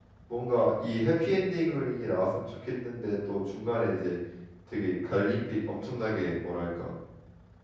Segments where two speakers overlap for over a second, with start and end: none

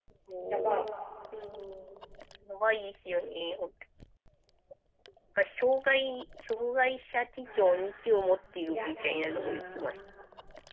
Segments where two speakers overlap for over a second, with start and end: 7.5-10.0

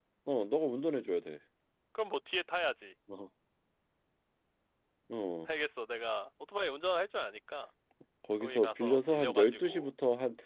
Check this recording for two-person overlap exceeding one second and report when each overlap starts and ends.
8.4-9.9

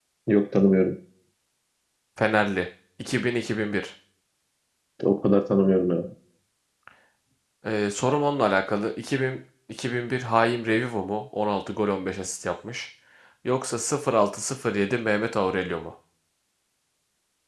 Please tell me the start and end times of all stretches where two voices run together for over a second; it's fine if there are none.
none

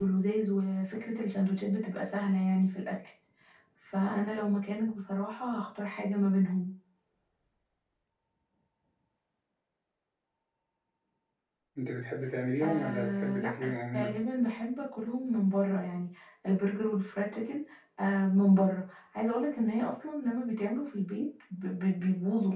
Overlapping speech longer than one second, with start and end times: 12.6-14.1

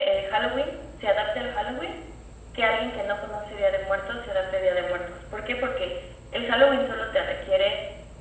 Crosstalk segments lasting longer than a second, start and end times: none

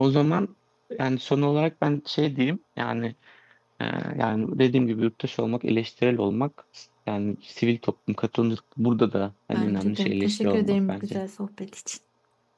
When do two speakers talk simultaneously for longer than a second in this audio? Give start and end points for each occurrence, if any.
9.5-11.2

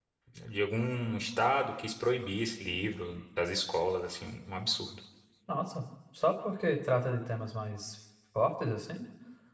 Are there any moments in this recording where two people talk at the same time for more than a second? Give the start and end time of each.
none

